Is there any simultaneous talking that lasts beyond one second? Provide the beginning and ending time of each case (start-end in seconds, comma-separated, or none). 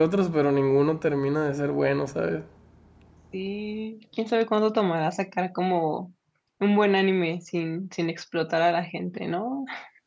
none